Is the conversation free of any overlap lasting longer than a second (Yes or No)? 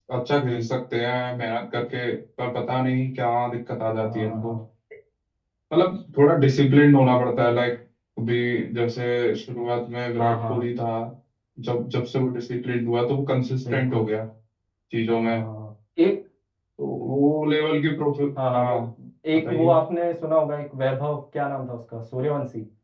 Yes